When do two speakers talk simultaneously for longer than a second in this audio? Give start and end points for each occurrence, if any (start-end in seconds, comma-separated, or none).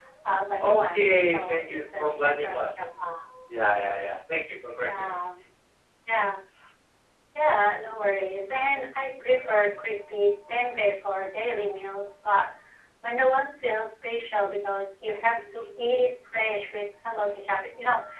0.6-2.9